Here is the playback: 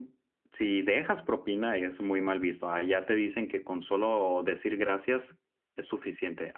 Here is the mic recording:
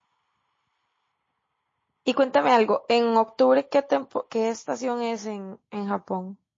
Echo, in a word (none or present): none